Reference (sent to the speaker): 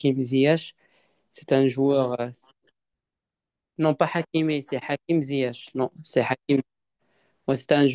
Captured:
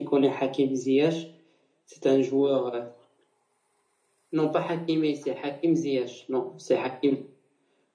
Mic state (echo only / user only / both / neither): echo only